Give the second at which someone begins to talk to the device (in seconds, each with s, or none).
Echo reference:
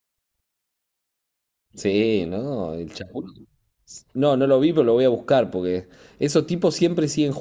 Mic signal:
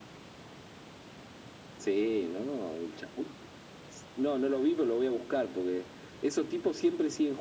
none